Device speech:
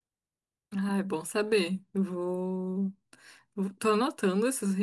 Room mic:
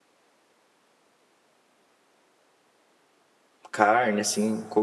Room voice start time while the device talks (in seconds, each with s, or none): 3.7 s